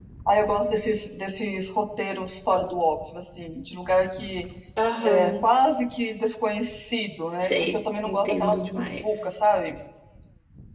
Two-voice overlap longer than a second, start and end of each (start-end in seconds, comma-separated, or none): 7.4-9.3